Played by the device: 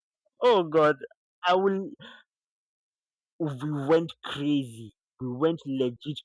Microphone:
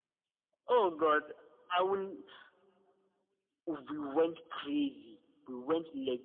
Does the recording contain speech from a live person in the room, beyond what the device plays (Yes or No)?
No